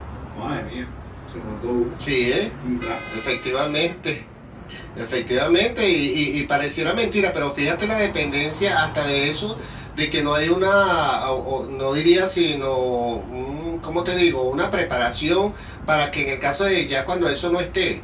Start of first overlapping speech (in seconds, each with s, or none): none